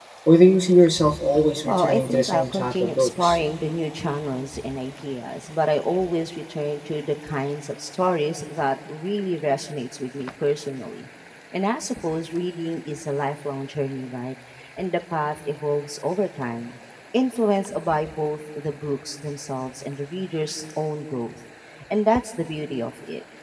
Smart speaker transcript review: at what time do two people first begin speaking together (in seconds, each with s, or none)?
1.7 s